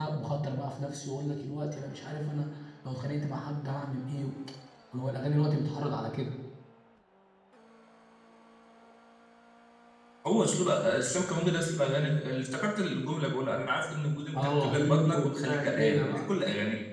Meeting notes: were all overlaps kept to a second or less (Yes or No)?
No